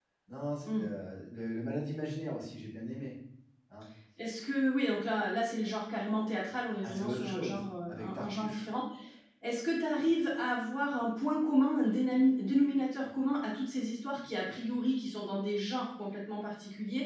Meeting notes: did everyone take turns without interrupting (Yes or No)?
No